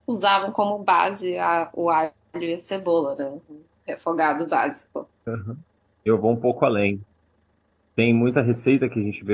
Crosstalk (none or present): none